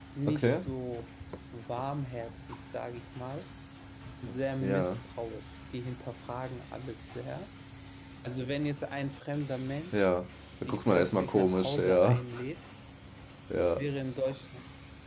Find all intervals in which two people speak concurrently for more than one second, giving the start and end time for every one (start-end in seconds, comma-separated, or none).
10.7-12.2